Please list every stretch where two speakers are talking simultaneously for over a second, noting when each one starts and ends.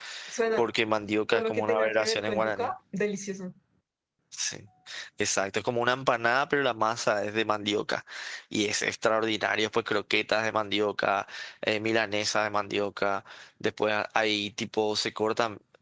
1.3-2.7

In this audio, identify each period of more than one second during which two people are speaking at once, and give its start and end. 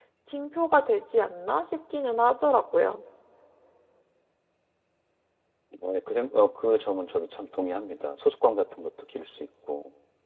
none

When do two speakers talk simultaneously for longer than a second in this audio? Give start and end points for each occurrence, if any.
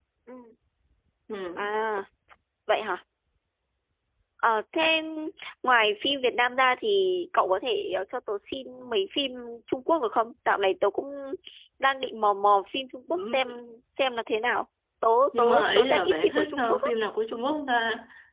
15.4-16.8

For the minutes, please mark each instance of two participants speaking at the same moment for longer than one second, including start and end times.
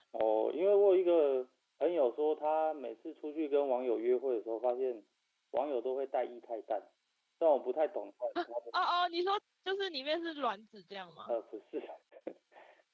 none

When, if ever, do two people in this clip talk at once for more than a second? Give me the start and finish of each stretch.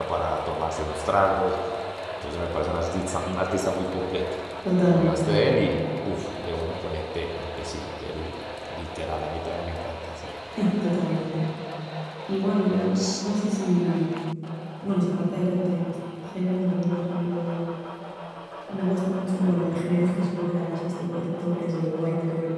none

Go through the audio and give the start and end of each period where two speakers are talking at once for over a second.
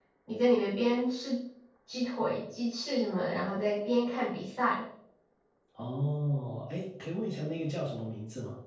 none

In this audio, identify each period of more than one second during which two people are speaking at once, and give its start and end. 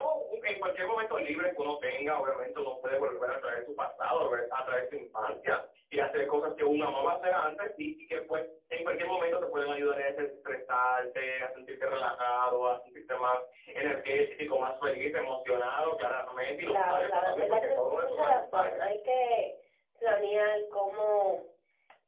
16.6-18.8

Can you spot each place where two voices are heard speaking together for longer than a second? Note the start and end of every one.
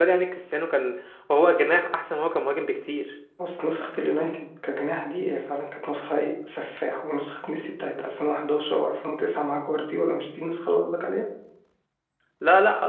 none

